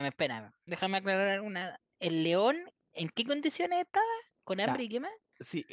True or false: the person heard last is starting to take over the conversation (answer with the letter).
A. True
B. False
A